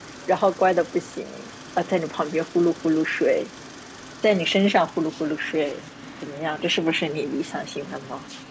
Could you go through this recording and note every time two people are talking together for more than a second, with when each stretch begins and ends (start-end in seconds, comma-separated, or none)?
none